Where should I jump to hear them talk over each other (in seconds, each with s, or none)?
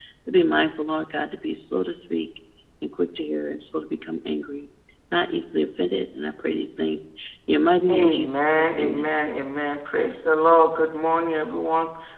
7.9 s